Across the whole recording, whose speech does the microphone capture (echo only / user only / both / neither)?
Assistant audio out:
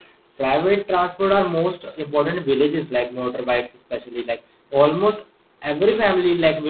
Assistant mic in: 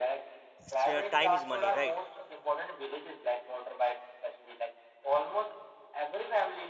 both